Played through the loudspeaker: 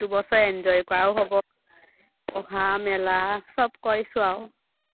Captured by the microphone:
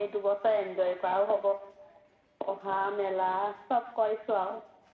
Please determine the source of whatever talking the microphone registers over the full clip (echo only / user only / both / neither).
echo only